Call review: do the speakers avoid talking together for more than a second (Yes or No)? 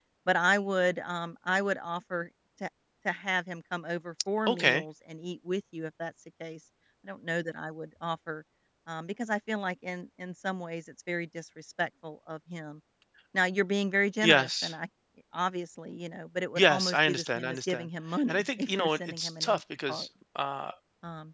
No